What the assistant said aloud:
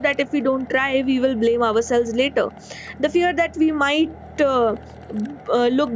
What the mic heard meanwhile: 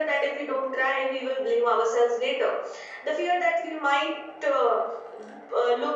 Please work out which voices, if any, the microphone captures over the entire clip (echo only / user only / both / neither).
echo only